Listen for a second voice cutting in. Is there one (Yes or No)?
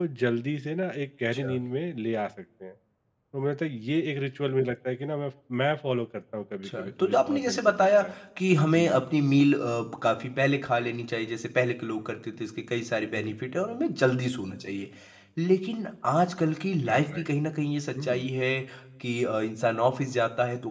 Yes